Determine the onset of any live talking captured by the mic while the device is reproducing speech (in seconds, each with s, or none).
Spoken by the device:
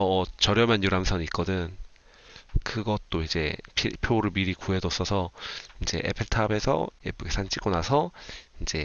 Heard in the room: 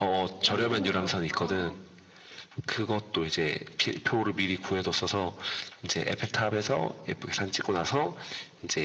0.3 s